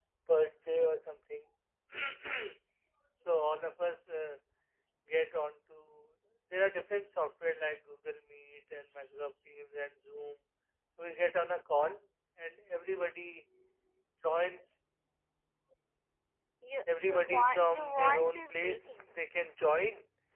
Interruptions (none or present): present